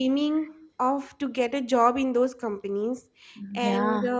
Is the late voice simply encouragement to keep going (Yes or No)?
Yes